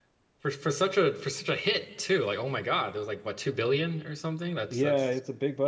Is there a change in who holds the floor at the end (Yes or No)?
Yes